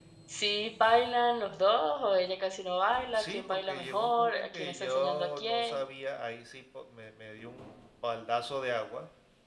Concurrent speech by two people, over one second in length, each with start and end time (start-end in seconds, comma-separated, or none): 3.1-5.8